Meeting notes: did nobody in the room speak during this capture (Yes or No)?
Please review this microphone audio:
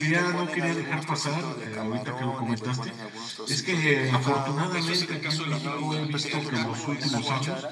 No